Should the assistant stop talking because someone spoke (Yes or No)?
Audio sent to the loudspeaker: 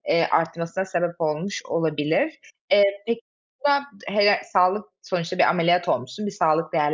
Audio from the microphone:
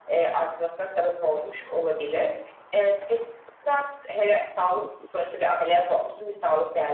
No